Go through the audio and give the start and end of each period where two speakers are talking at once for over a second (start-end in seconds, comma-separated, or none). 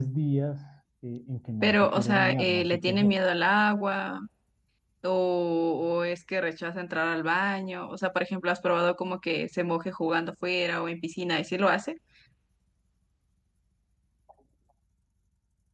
1.6-3.1